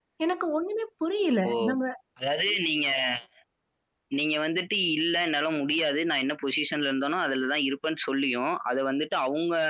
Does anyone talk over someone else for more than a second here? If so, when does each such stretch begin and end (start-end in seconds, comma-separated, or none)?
none